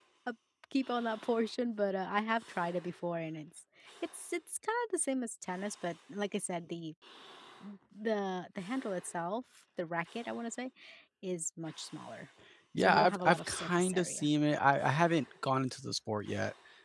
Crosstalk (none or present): present